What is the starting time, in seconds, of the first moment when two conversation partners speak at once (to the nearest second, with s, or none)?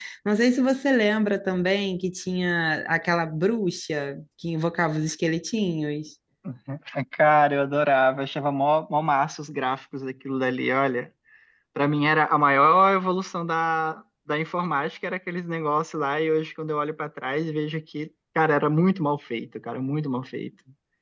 none